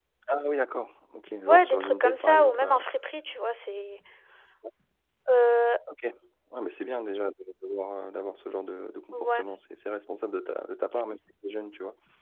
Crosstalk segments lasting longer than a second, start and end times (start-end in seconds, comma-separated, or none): 1.5-2.7